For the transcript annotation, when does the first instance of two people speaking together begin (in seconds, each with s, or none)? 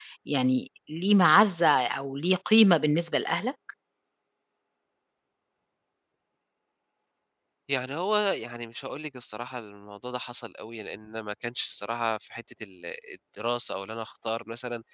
none